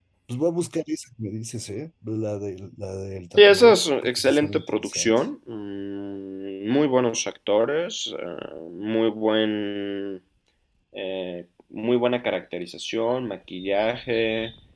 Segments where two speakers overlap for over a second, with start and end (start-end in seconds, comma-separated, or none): 3.4-5.2